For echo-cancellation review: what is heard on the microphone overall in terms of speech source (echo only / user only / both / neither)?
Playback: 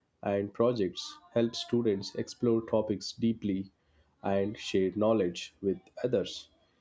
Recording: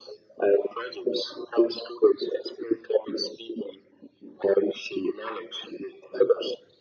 echo only